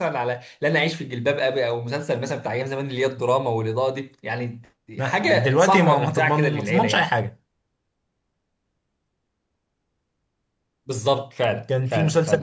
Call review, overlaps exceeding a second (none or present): present